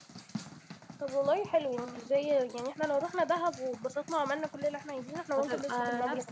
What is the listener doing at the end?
taking over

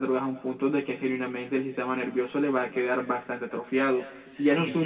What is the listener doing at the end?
taking over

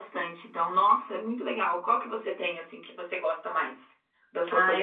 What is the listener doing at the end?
taking over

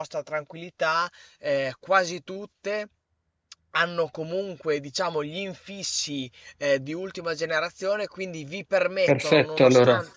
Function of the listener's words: listening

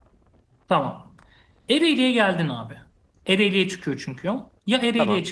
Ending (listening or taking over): listening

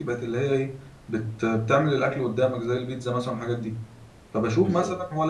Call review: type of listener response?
listening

